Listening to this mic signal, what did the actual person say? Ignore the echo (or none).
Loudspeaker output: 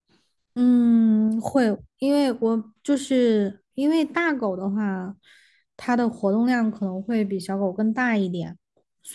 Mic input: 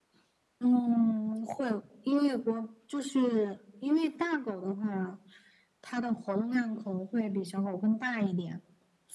none